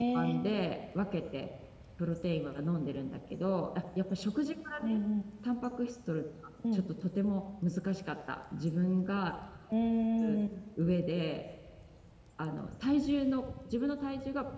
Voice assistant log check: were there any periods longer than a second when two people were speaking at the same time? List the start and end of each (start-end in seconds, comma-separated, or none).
none